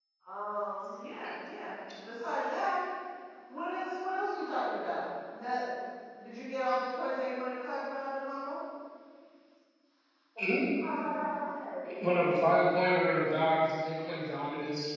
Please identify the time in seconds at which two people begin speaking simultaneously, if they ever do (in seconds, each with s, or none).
none